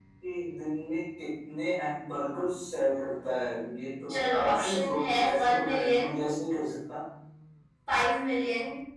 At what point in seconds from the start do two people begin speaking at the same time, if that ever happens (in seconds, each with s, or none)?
4.1 s